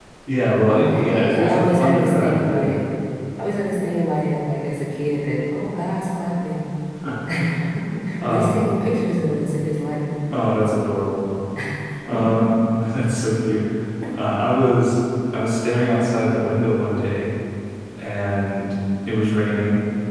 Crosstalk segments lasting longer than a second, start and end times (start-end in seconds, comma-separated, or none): 0.7-2.7